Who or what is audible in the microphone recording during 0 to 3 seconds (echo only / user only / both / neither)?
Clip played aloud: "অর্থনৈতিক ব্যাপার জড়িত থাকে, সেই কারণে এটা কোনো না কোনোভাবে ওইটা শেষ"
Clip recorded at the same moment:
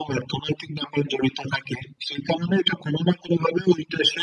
echo only